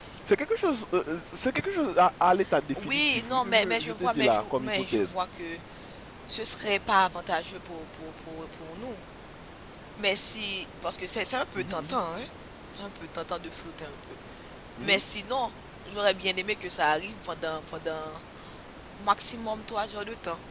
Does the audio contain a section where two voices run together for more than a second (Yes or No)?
Yes